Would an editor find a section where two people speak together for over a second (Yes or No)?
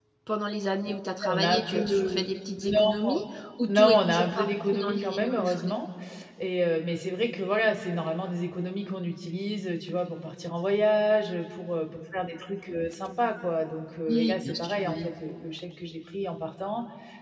Yes